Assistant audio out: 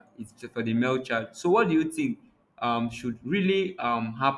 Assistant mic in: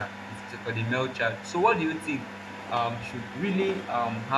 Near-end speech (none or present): none